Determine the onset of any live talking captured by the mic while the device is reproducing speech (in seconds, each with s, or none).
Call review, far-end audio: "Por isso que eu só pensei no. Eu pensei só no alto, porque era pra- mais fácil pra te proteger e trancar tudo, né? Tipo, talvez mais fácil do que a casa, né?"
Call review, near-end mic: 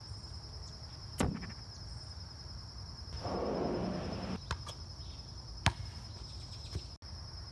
none